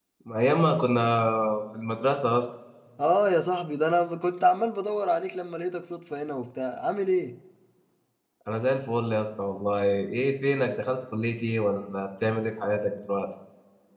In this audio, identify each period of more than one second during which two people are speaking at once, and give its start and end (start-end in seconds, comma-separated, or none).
none